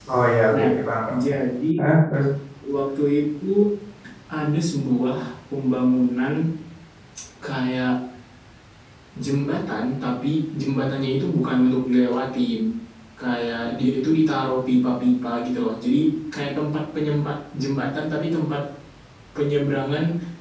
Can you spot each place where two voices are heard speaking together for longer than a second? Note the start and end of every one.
none

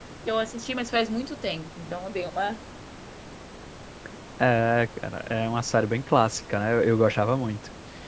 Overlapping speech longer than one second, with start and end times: none

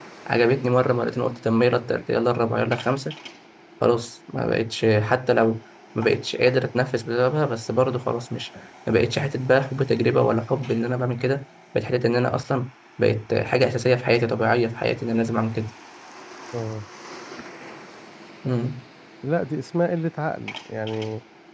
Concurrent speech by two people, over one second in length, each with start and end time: none

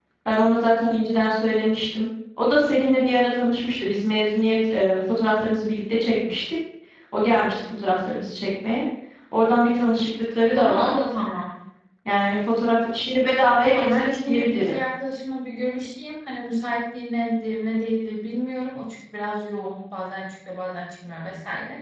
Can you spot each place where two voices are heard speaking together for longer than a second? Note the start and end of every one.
13.6-14.8

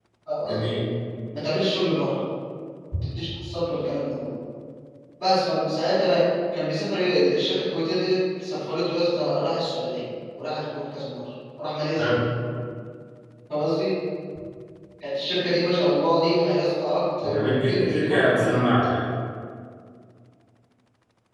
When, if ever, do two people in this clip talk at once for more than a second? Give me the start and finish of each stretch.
17.2-18.6

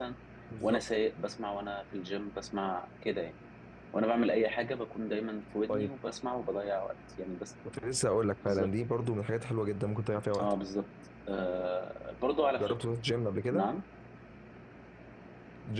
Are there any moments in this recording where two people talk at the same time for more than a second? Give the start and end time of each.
none

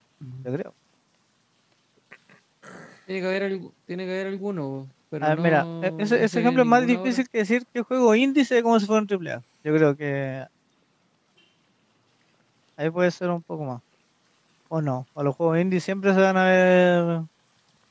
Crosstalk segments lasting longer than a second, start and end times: 5.2-7.2

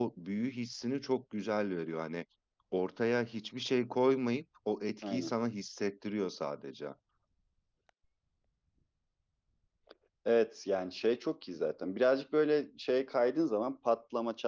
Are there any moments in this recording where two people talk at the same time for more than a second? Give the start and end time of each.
none

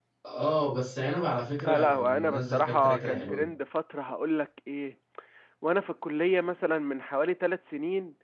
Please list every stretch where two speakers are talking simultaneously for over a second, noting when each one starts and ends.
1.6-3.4

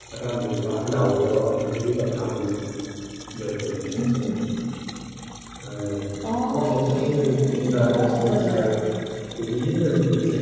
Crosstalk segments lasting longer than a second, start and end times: 6.5-8.7

